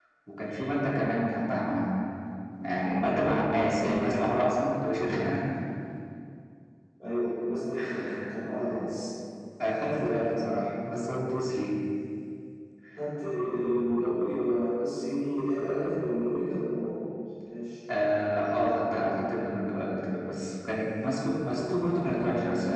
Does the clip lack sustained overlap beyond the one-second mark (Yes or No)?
Yes